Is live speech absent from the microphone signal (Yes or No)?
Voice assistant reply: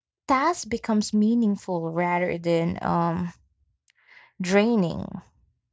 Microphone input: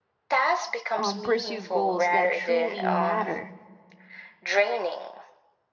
No